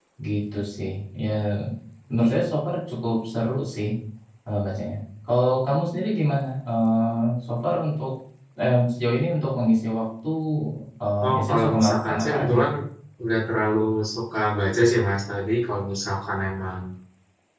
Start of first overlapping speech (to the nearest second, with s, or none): 11 s